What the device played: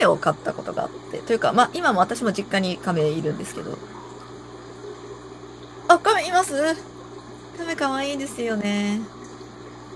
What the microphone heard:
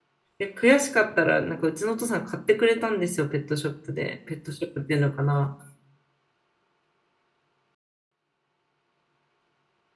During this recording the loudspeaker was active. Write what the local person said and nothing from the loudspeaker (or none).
で、悔しかったら、なんかうちのお父さん買ってくれたんですよ、ペットショップで。ペットショップっていうのかな。